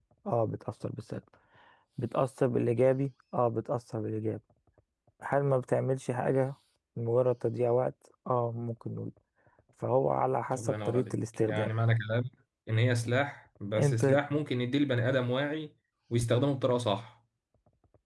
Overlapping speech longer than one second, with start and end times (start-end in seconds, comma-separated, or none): 10.5-11.7